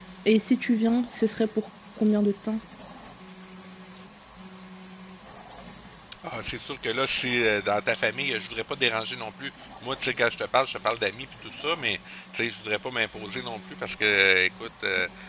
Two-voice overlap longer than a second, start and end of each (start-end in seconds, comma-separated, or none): none